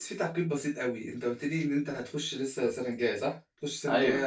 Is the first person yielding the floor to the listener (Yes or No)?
No